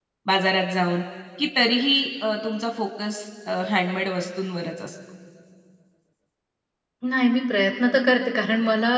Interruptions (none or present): none